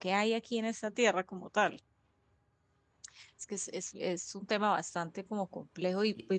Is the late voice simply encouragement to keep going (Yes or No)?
Yes